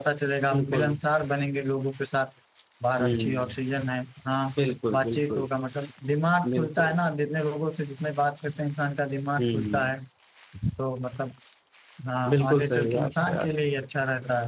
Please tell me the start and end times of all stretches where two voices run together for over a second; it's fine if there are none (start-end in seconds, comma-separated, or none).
12.3-13.5